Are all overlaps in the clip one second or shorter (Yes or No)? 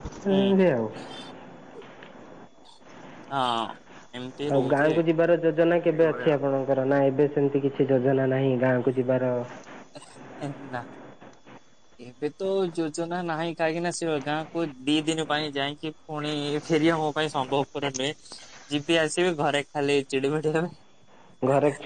Yes